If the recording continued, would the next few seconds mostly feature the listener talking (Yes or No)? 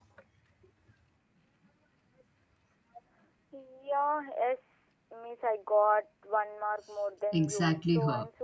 Yes